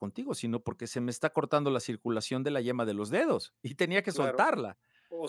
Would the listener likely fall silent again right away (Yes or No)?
No